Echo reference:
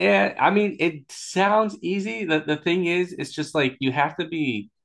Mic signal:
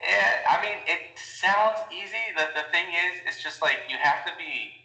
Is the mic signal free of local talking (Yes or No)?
Yes